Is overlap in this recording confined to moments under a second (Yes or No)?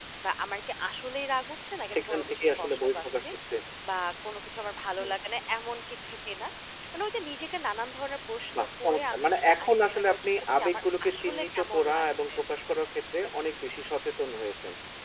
No